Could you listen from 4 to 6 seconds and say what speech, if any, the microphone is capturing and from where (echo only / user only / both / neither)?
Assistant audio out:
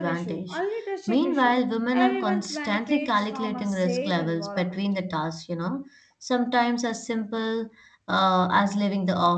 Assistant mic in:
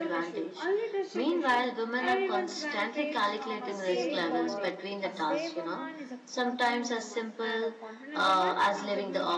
both